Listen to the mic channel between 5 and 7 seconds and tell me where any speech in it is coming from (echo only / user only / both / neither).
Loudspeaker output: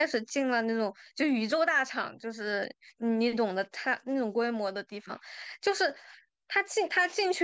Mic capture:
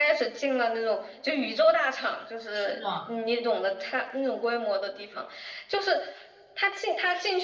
echo only